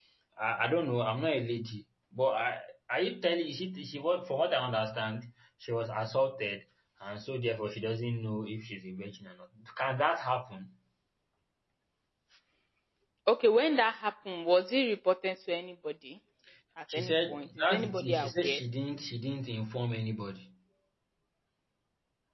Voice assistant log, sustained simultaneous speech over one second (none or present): present